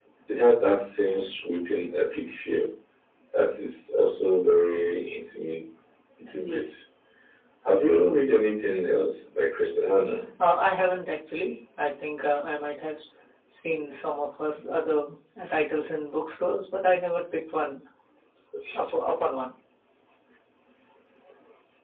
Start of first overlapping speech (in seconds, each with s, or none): none